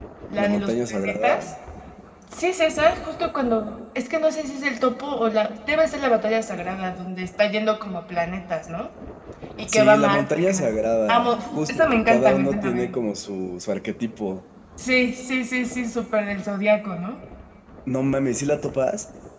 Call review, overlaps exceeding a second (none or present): present